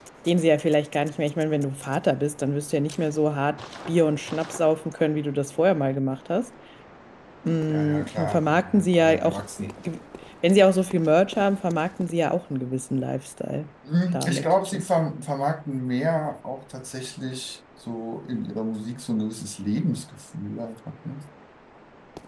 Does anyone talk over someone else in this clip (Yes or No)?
Yes